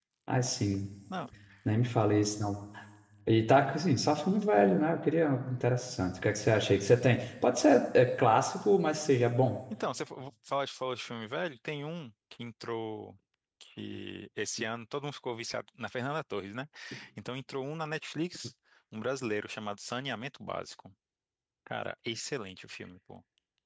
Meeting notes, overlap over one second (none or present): none